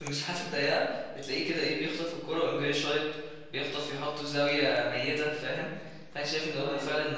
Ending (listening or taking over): listening